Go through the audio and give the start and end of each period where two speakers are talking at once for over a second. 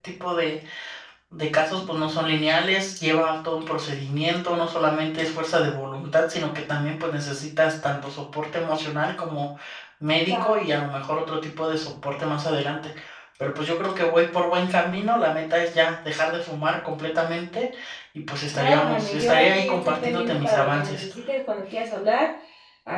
18.5-21.0

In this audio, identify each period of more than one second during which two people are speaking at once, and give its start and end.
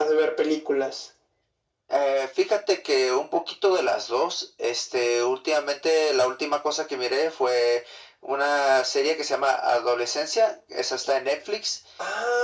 none

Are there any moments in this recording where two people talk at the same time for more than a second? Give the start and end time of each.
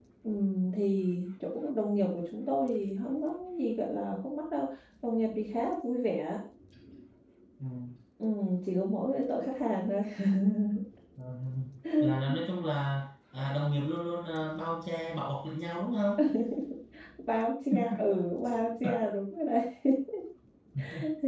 none

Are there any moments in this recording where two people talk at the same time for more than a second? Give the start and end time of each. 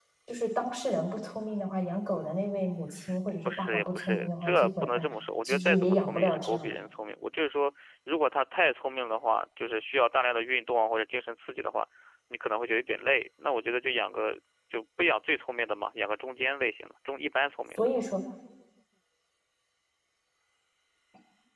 3.5-5.0, 5.5-6.7

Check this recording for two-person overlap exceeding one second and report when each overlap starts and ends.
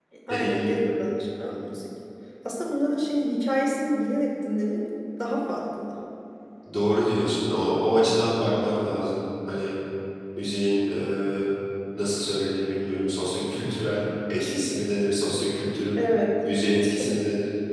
none

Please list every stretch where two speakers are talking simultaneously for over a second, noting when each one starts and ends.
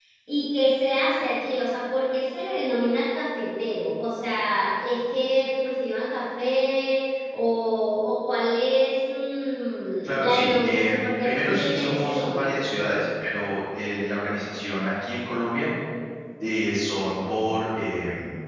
10.0-12.5

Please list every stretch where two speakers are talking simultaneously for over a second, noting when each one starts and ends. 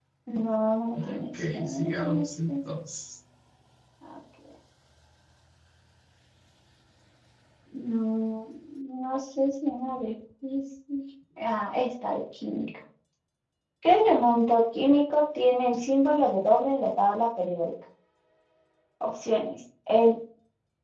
0.9-2.5

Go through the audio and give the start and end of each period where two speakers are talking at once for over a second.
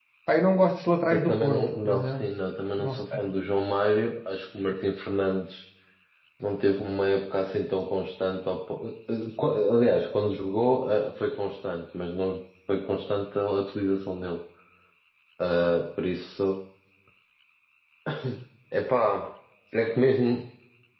1.1-2.3

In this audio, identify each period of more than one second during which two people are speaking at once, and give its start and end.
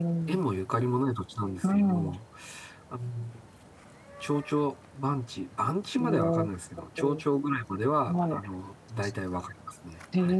none

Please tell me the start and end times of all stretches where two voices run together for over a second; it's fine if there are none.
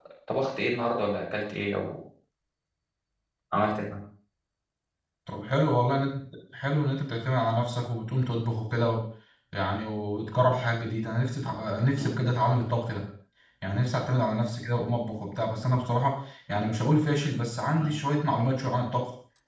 none

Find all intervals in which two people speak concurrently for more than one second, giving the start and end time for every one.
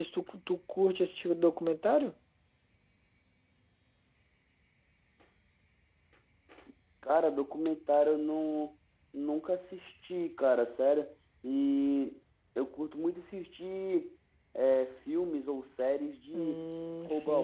none

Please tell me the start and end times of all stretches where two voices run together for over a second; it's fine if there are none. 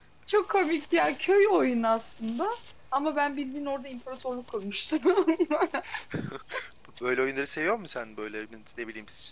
none

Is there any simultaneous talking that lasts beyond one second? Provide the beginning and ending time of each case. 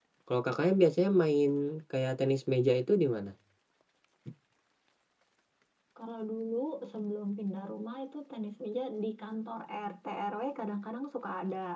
none

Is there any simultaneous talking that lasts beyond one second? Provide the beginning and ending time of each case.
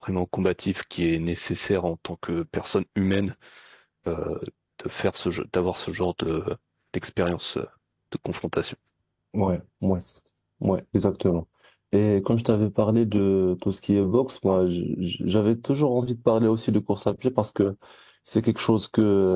none

